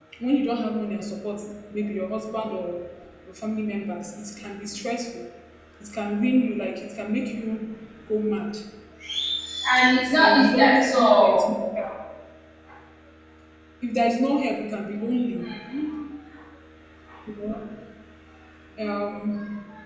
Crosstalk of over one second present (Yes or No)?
Yes